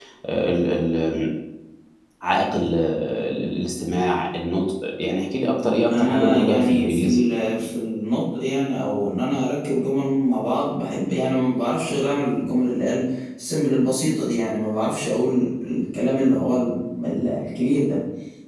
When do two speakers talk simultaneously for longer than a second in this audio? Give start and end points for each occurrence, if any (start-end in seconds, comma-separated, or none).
5.9-7.3